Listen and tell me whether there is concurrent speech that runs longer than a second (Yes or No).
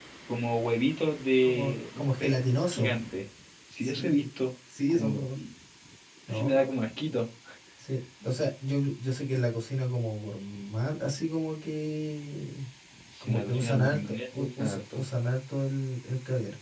Yes